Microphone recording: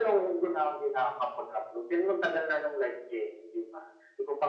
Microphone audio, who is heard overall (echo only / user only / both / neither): echo only